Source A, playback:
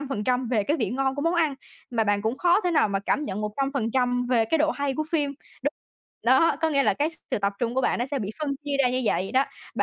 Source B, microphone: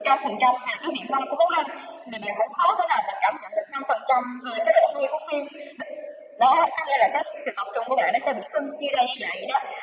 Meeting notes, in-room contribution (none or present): none